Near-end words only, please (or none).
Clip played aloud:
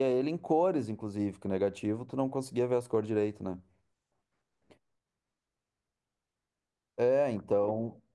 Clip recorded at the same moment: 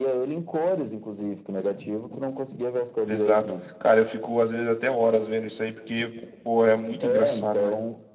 Exato. Cara, eu fico às vezes até horas vendo isso aí, porque, pô, é muito engraçado, né?